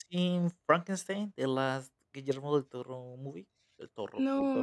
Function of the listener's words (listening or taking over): taking over